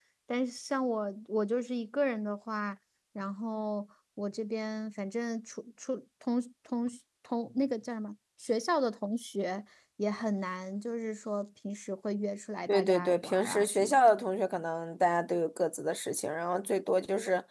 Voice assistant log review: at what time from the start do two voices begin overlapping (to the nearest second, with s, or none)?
13 s